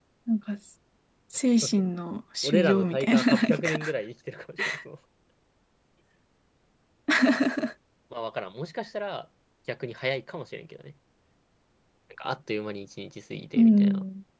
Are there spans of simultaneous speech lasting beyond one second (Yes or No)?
Yes